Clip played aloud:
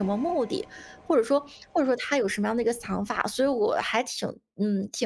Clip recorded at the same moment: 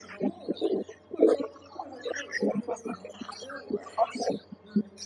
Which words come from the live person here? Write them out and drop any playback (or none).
none